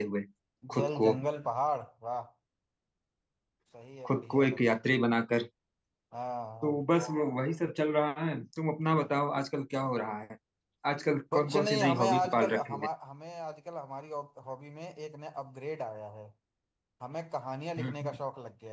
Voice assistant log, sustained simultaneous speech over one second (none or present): present